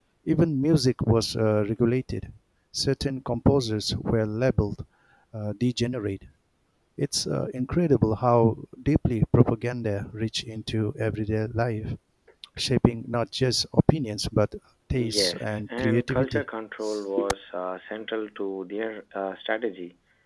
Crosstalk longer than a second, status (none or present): present